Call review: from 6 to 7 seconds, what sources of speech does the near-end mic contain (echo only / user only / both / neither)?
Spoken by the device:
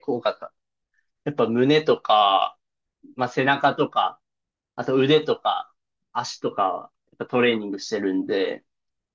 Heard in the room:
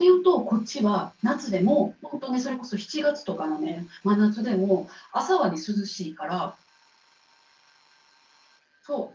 user only